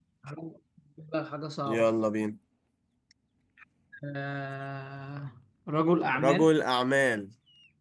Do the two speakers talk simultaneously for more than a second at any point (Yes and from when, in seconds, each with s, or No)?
No